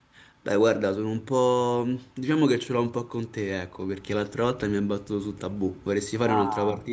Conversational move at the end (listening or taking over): taking over